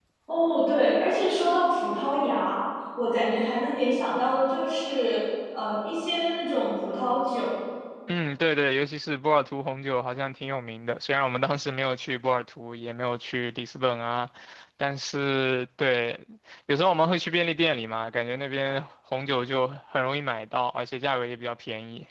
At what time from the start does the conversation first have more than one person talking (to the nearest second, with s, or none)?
none